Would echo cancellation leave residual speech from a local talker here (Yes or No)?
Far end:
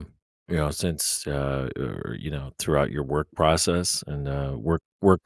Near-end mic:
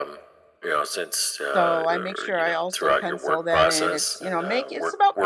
Yes